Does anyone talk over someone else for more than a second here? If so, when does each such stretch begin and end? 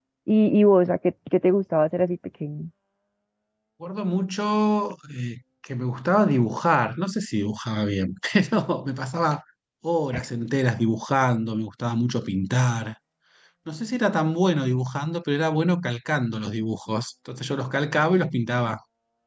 none

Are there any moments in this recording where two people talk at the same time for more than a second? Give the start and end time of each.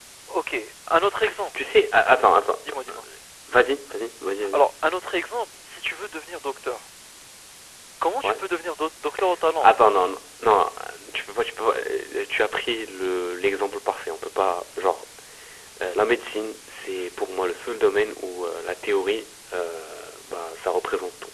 none

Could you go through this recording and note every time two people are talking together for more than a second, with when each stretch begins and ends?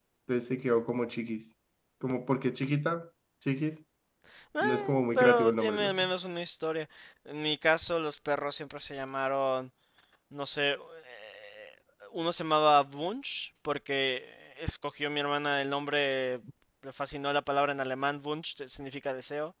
4.6-6.1

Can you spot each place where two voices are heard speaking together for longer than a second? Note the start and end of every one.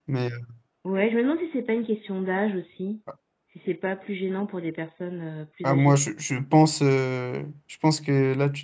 none

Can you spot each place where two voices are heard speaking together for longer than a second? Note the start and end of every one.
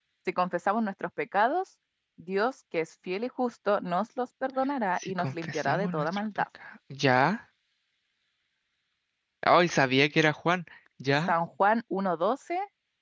5.0-6.4

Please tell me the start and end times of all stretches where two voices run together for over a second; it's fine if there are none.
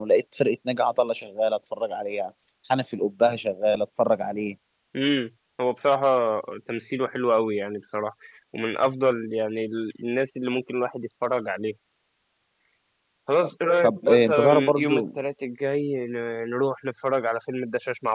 13.8-15.0

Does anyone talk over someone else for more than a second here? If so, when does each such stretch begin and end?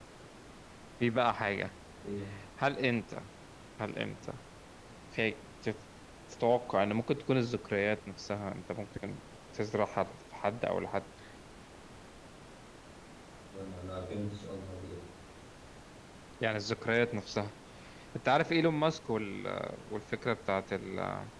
none

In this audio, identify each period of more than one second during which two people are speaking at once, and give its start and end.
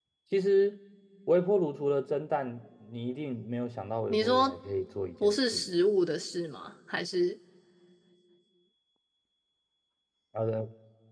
none

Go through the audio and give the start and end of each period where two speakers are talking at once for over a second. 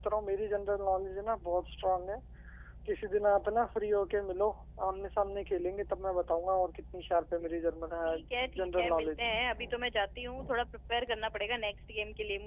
8.0-9.3

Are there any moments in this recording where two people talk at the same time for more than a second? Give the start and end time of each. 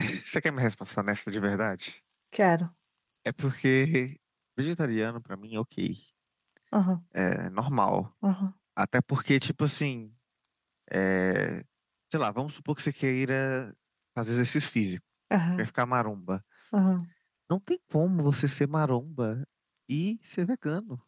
none

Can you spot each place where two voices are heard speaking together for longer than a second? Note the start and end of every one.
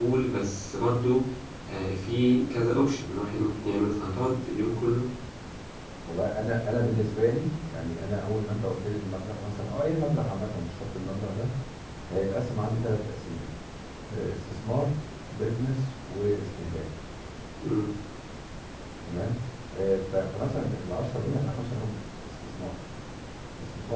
none

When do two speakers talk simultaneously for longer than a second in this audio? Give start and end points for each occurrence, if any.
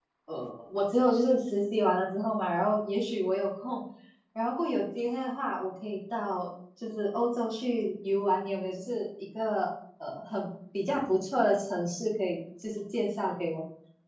none

